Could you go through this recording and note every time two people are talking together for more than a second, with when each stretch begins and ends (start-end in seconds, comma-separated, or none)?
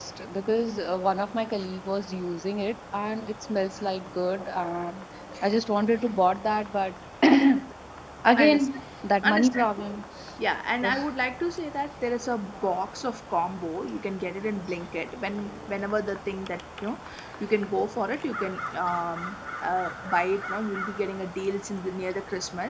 none